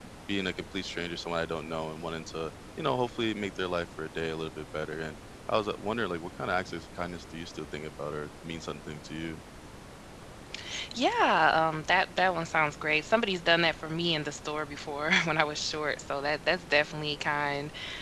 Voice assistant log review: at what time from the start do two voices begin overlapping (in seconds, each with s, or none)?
none